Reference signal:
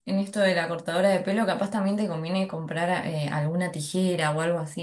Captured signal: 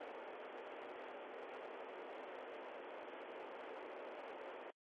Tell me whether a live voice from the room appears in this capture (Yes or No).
No